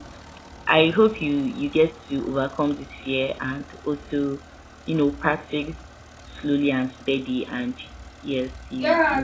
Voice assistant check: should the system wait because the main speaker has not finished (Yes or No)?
No